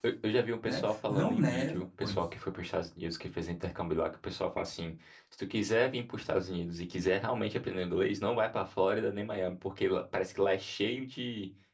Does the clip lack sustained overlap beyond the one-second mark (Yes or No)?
No